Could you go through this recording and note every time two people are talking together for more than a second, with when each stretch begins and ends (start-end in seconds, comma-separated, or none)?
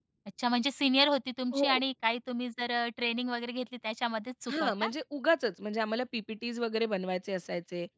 none